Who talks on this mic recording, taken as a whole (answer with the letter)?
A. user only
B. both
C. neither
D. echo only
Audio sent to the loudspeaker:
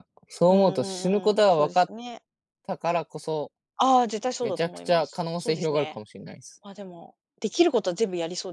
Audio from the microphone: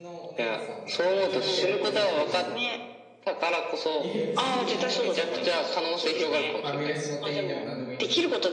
B